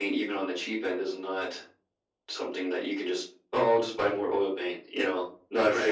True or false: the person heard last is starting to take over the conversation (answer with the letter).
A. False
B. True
B